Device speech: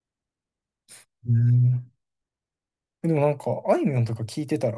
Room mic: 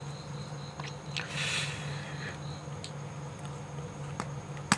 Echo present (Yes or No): No